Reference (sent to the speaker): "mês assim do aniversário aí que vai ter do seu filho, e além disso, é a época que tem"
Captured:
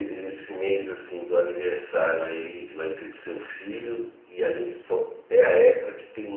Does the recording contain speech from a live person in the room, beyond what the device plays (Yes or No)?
No